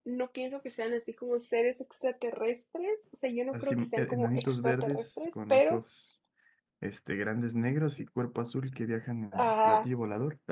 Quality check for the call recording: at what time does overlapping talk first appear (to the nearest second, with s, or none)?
4 s